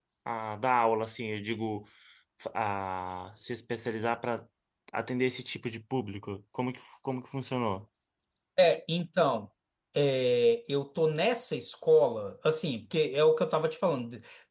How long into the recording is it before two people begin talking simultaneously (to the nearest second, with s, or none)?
none